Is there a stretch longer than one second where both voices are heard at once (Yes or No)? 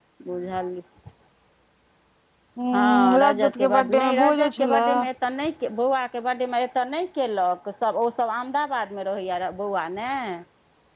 Yes